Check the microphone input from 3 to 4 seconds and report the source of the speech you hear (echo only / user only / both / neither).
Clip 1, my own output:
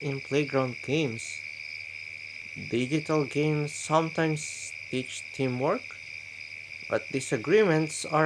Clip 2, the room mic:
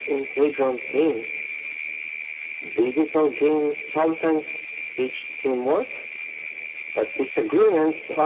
echo only